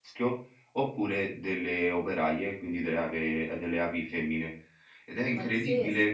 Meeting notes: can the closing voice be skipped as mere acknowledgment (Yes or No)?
No